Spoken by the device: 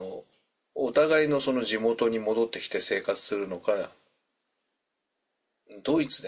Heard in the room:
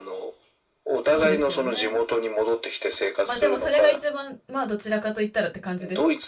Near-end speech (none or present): present